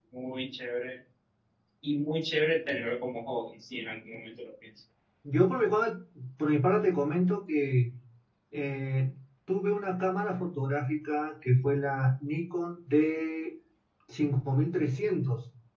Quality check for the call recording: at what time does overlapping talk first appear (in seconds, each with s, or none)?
none